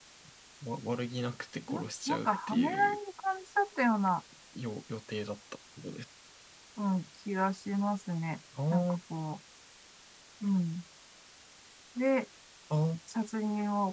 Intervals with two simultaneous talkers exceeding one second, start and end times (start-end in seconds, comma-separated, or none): 1.7-3.0